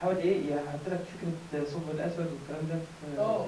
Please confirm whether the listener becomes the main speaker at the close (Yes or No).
Yes